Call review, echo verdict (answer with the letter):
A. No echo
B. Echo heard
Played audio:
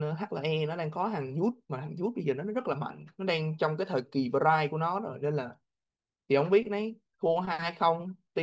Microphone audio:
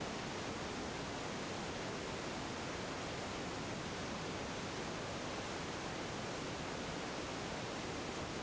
A